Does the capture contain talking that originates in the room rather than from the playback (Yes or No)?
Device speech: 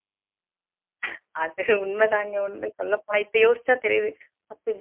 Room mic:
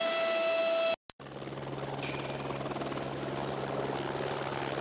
No